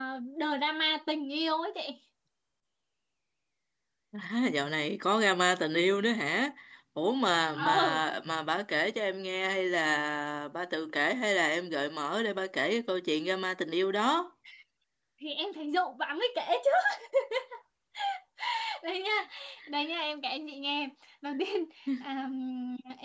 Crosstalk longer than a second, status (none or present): none